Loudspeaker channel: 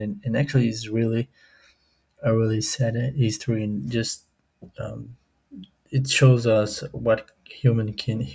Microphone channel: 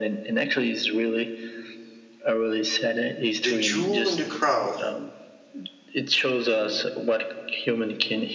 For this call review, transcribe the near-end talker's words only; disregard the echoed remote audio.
the jewel in the crown,

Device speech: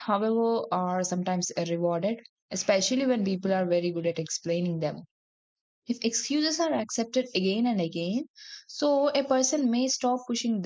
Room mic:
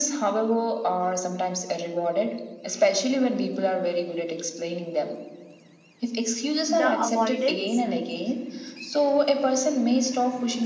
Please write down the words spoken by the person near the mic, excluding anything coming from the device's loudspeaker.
the avoidance

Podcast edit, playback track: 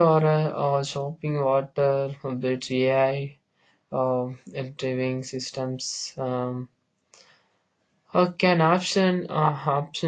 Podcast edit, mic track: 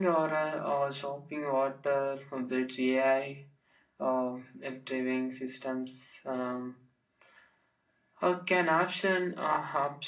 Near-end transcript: none

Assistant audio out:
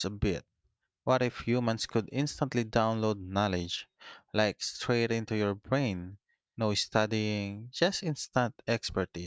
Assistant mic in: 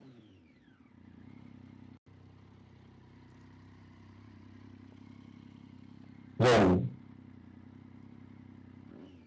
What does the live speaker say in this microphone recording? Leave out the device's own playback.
Whoa.

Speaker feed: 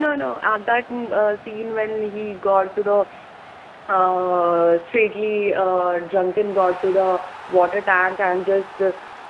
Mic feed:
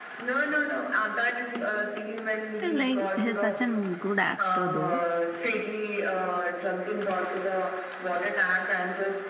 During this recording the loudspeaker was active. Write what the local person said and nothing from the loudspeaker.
like he's such a good actor though.

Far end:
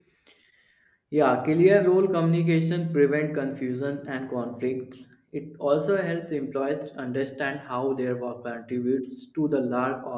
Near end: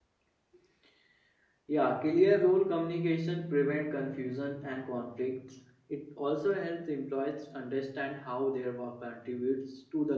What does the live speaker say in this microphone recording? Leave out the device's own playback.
none

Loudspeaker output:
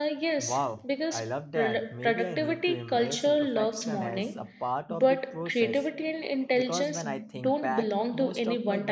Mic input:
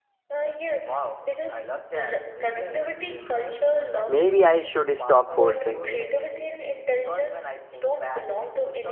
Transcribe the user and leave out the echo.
Maybe I should stop forcing it.

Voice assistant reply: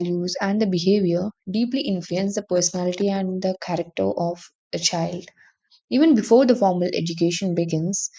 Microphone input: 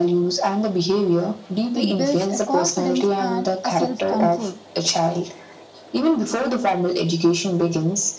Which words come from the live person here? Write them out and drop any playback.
It builds a confidence and a self control.

